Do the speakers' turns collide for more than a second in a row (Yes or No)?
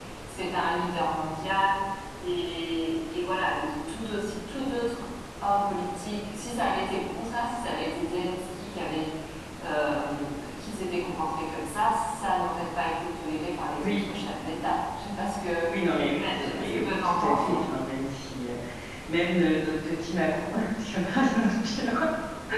Yes